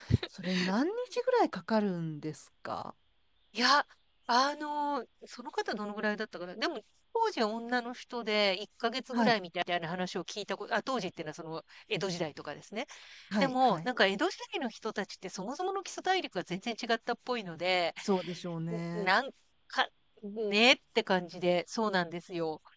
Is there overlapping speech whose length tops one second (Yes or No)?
No